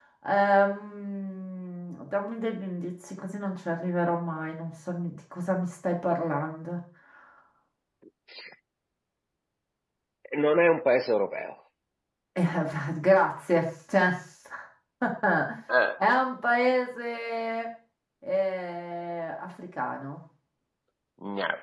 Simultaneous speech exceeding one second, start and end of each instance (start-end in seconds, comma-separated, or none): none